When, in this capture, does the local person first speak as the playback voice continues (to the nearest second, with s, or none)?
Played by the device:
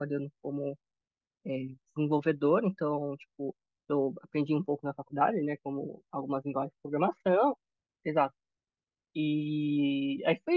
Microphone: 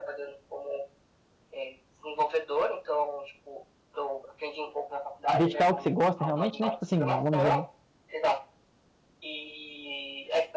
5 s